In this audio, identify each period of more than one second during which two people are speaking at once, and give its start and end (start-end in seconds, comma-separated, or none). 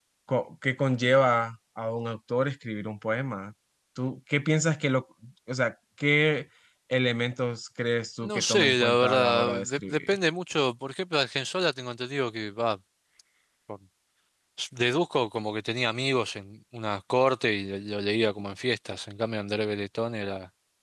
8.2-10.1